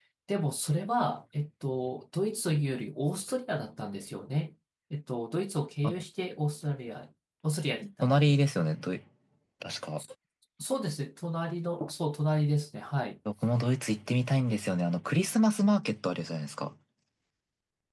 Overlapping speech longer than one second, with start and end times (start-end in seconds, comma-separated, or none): none